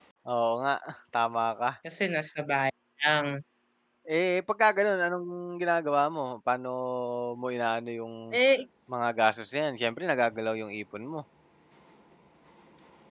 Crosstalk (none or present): none